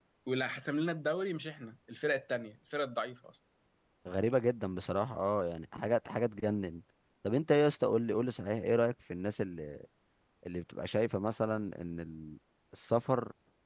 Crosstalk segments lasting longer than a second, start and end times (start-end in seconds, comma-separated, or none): none